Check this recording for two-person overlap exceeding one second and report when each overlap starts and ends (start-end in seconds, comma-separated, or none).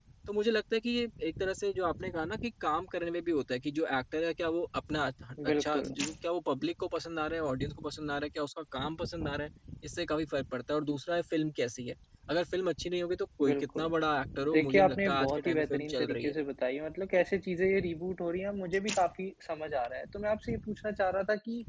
14.5-16.3